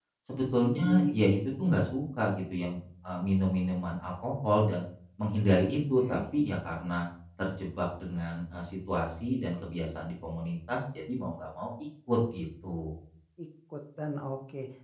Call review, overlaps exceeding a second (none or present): none